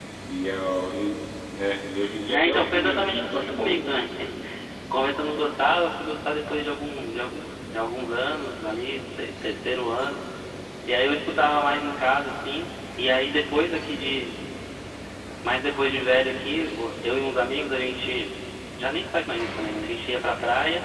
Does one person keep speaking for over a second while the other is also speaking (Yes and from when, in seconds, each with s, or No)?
Yes, from 2.3 s